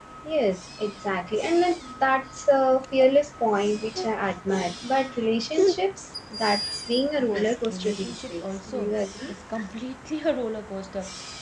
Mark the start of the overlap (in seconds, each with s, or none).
7.2 s